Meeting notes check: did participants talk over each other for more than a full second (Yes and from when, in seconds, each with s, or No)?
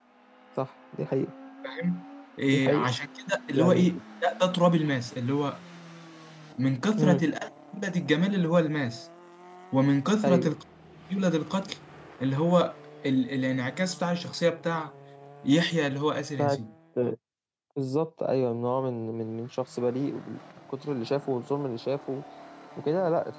No